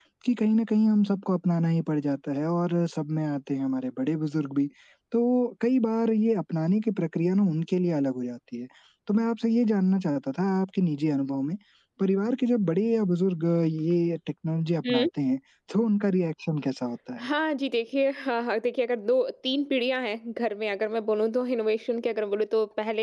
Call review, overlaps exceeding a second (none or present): none